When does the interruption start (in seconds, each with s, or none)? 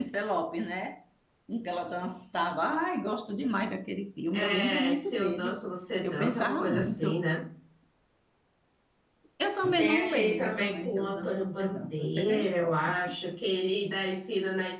4.3 s